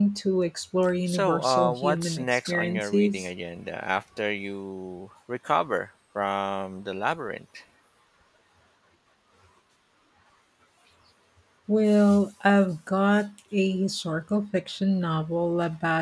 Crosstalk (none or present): present